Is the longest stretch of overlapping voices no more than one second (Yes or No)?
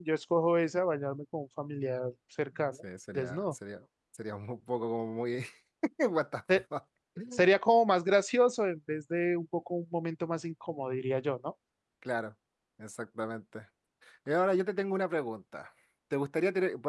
Yes